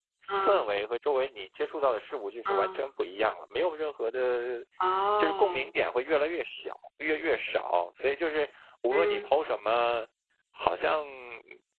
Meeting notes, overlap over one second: none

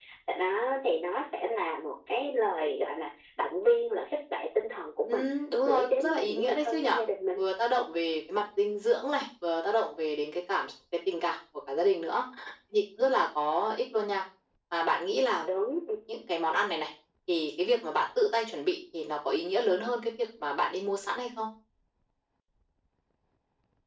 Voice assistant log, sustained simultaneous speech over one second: present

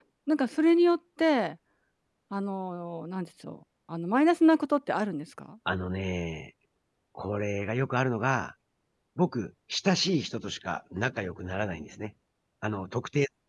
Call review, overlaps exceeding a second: none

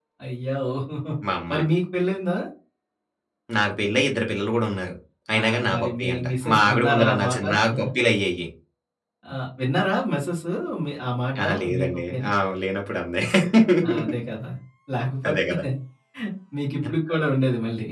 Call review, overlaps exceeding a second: present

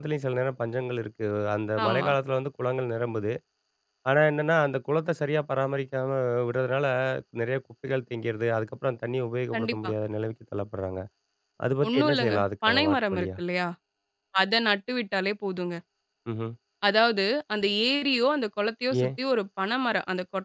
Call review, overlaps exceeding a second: present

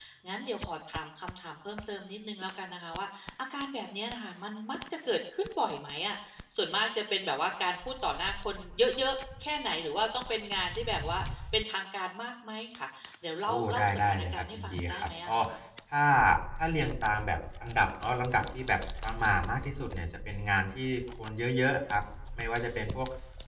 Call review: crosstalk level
present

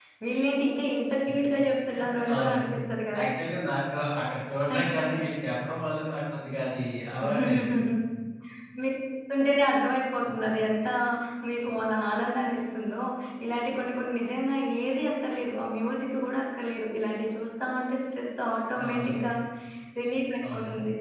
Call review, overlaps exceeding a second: none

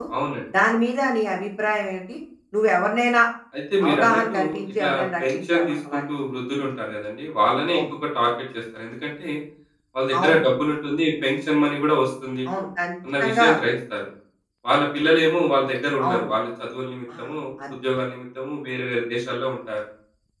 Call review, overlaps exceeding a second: present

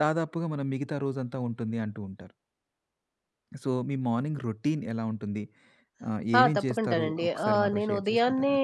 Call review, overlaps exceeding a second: present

